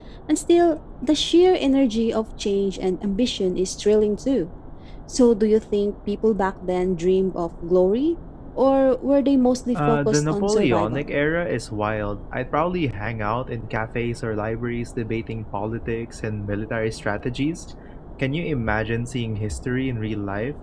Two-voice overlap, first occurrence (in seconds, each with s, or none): 9.8 s